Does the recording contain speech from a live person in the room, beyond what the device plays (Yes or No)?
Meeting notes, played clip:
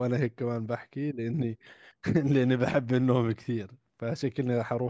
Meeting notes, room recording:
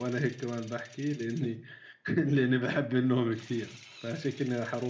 No